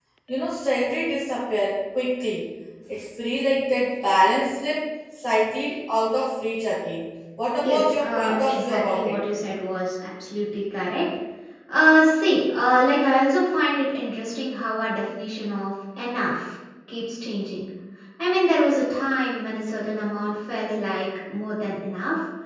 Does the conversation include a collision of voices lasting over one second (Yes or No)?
Yes